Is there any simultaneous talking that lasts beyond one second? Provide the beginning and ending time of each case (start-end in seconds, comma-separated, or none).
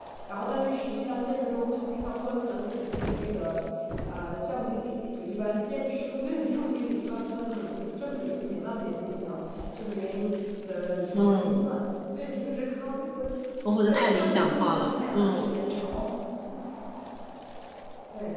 13.8-15.5